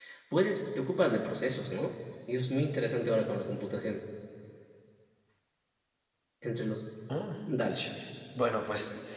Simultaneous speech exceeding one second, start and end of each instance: none

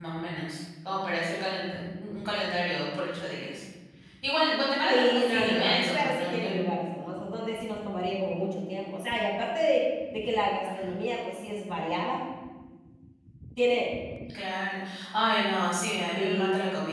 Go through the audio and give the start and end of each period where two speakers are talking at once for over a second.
4.9-6.7

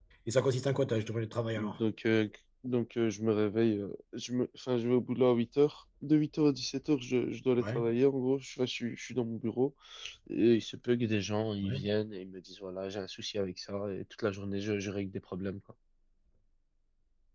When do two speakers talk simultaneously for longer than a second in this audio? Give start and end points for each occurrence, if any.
none

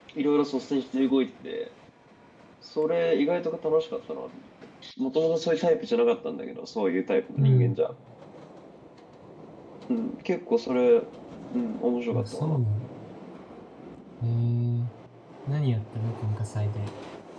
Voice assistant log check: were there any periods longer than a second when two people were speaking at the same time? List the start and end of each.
none

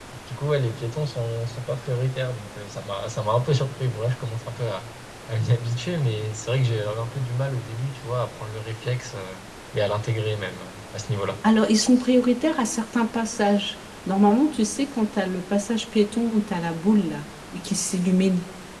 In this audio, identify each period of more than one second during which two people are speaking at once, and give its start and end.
none

